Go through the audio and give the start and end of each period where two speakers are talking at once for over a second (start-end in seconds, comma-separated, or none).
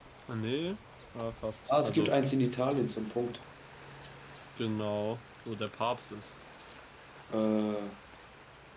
none